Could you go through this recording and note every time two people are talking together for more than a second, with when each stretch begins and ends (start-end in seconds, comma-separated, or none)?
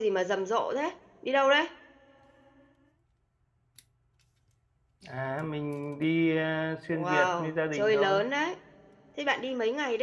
6.9-8.2